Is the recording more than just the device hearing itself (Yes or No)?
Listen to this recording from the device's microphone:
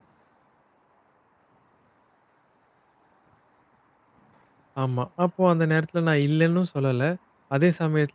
Yes